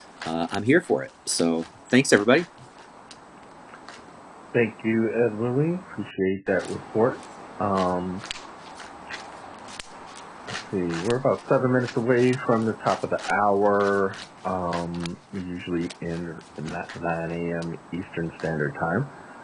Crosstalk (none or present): none